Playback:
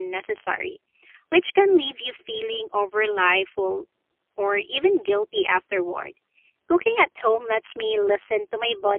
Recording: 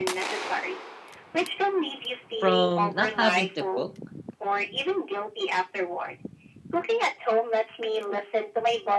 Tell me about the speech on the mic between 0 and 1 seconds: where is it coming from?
echo only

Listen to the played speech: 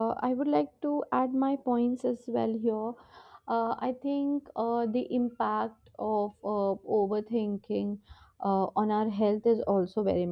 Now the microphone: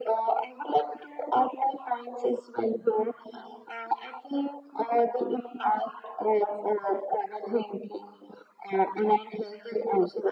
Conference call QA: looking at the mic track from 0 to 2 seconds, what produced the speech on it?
echo only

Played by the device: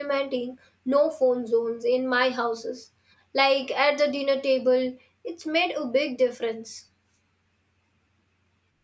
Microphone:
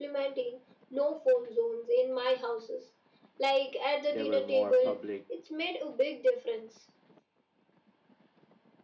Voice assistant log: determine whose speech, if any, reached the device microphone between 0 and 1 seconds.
echo only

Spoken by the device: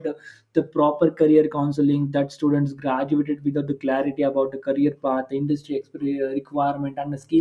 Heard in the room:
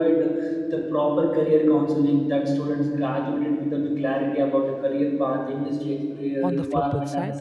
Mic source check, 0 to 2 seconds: echo only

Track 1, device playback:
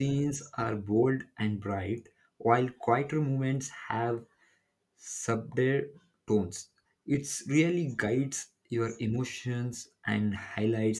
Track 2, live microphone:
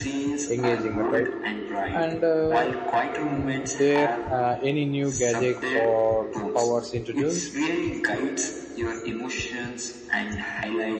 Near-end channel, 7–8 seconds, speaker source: both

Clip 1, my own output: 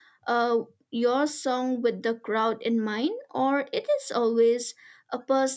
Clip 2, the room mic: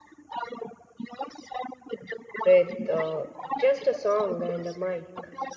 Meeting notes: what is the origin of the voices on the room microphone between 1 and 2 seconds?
echo only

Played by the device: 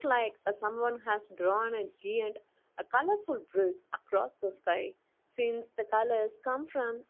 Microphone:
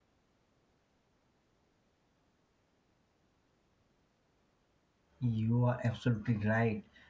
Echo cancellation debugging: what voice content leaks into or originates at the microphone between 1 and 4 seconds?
neither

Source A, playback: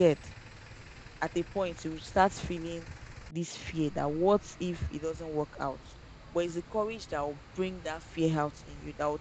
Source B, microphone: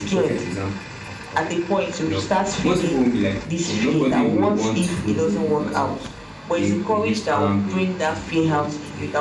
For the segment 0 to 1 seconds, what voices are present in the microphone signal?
both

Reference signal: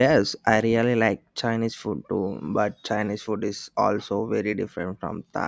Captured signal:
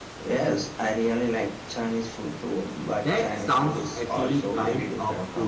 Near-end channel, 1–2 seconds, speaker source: echo only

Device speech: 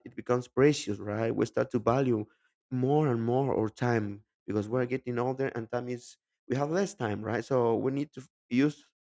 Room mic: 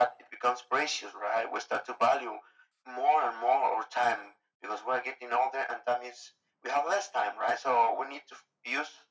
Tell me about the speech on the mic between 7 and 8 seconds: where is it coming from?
echo only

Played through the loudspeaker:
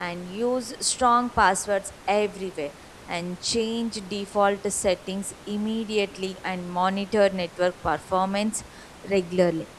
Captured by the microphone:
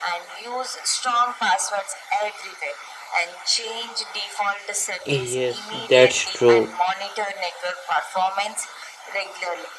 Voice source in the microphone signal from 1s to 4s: echo only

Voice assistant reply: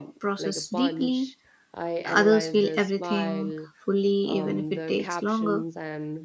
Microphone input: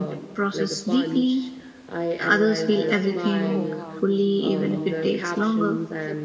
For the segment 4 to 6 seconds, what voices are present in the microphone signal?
both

